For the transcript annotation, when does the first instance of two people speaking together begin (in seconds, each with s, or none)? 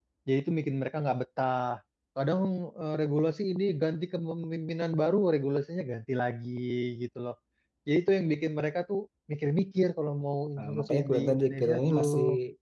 10.6 s